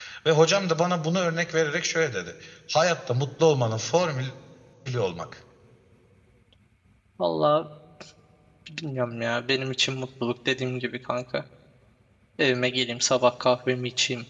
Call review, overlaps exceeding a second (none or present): none